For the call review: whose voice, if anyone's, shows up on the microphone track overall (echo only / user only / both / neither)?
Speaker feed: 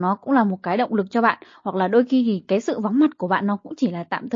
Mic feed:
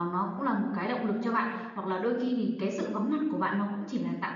both